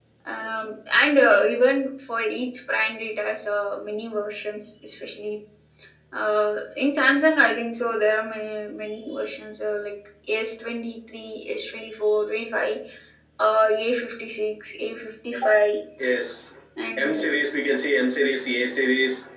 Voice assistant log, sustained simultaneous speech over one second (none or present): none